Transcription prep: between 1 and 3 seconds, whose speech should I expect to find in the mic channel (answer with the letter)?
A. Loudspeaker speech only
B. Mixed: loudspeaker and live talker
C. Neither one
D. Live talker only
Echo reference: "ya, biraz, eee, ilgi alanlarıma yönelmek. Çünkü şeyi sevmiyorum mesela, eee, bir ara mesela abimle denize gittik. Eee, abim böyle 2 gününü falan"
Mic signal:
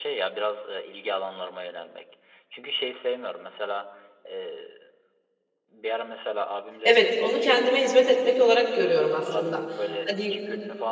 A